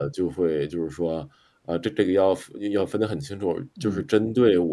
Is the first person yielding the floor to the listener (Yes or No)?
No